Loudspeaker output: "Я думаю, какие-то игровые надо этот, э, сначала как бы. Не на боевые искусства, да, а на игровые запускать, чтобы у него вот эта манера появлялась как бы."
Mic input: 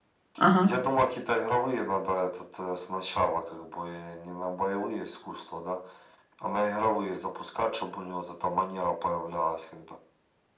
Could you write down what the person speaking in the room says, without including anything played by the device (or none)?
Ага.